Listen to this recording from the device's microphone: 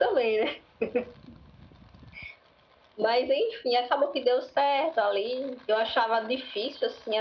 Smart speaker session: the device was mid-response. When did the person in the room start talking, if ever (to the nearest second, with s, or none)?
none